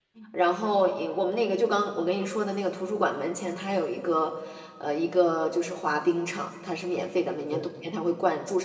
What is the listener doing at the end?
listening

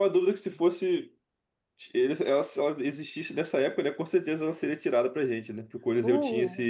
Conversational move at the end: listening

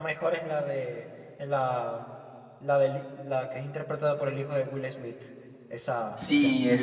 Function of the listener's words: taking over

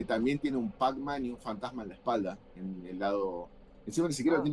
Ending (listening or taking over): listening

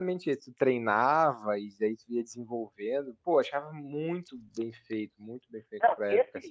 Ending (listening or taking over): taking over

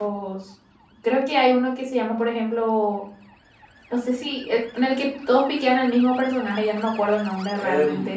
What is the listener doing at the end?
taking over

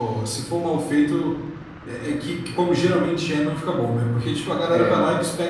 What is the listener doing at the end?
listening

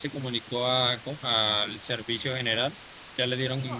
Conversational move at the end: taking over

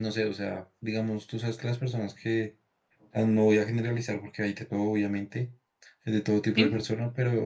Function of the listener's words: listening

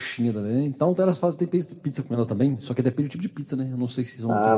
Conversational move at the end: taking over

